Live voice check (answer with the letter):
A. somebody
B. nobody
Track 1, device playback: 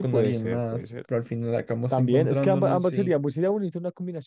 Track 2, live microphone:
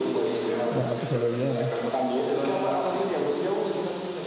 A